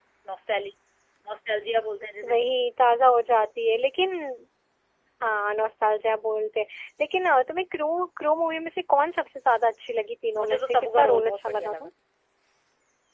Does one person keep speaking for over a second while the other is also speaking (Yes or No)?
Yes